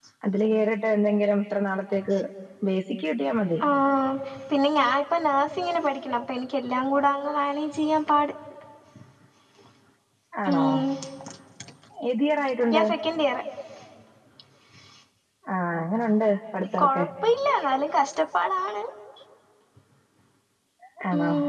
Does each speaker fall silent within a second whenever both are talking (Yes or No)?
Yes